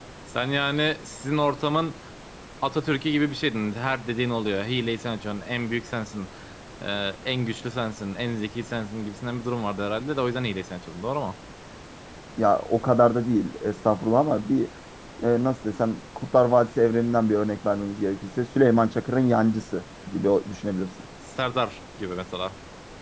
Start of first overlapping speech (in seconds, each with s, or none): none